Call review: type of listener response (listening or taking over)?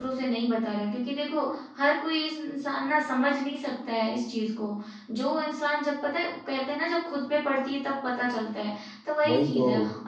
listening